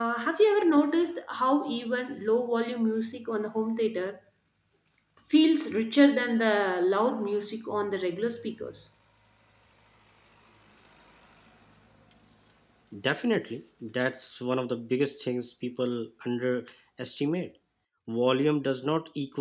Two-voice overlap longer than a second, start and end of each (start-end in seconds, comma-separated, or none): none